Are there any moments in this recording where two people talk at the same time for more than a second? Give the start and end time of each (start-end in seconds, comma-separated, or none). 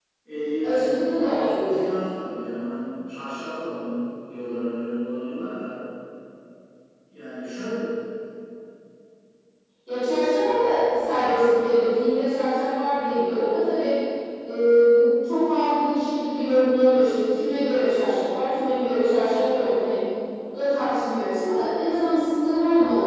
0.6-1.8